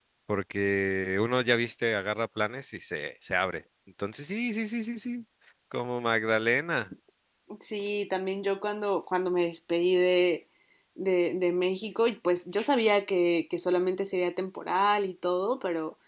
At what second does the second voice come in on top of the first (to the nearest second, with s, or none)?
none